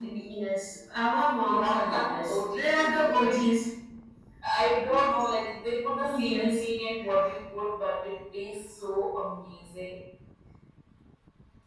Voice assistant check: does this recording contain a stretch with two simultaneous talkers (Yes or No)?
Yes